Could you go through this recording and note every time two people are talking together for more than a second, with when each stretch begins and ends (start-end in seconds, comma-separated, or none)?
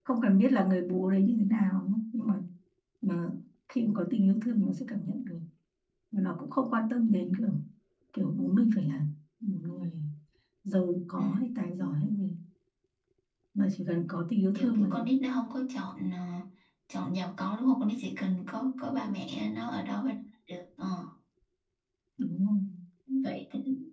none